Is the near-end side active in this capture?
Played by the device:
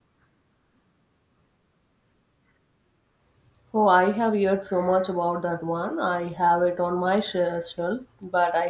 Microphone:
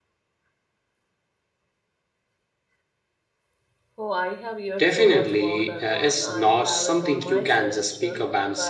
Yes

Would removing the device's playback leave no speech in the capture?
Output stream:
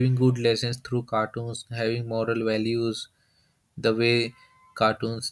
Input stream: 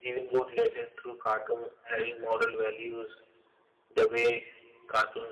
Yes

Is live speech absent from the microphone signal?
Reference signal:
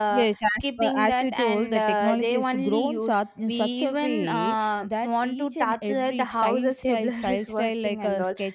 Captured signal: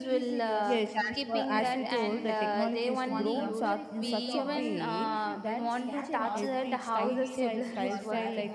No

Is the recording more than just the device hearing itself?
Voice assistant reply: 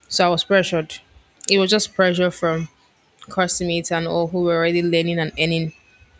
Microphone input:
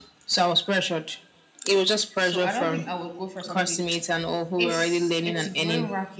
Yes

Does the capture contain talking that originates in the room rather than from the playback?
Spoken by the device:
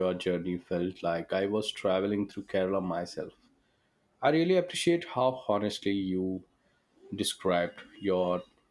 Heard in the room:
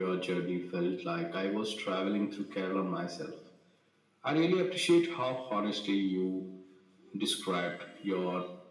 No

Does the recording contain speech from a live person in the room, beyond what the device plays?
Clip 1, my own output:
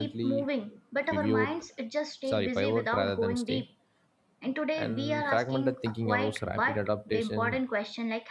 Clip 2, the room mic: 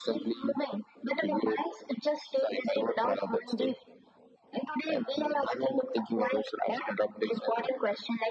No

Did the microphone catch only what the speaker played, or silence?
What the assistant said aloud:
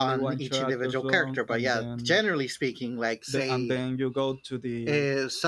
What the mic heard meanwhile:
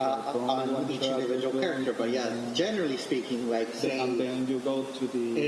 Yes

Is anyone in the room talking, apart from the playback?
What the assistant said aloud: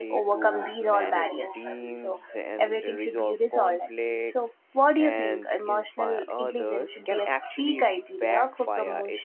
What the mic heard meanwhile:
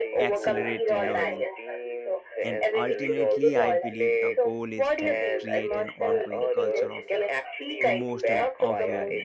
Yes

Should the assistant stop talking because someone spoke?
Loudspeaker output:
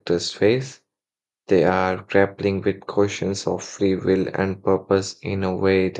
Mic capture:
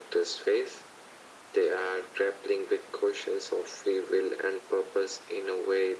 No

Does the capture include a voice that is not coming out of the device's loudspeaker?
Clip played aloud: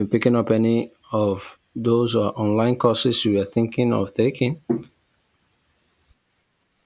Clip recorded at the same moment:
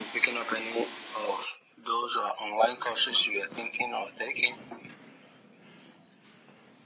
No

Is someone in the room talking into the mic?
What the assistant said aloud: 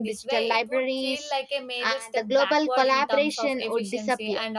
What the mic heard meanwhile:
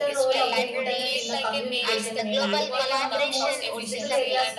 Yes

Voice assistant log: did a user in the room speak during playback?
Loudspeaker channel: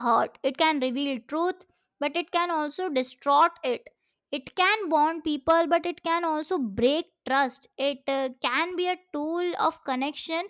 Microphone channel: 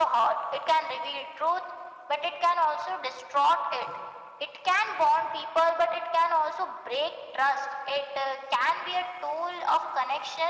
No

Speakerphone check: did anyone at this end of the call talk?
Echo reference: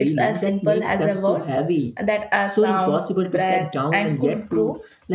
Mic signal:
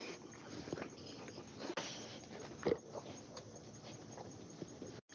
No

